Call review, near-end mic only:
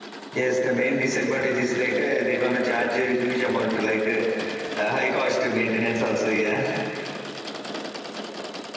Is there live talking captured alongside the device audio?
Yes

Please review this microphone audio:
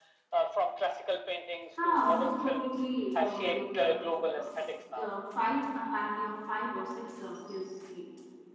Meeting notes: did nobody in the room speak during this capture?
No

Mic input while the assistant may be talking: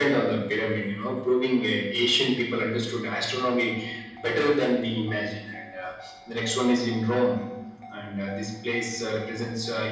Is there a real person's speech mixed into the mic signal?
No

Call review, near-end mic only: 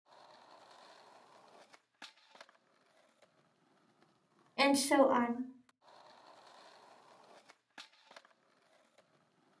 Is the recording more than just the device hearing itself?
Yes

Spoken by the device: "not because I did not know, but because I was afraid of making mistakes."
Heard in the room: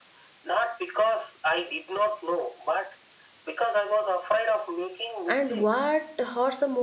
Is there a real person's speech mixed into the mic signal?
Yes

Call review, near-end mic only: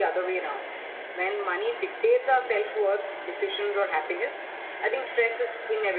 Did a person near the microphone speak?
No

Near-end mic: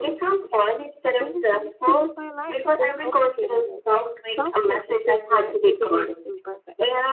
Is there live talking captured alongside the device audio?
Yes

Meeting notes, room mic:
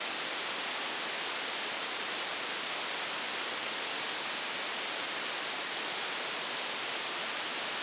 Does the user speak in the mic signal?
No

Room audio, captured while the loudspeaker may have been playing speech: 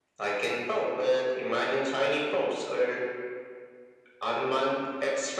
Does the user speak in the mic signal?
No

